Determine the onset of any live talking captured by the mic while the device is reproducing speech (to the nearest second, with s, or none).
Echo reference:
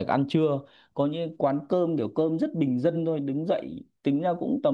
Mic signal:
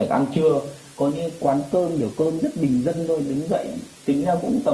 none